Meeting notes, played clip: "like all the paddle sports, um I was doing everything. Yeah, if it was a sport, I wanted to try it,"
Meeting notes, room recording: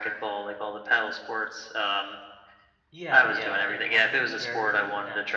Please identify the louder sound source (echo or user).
echo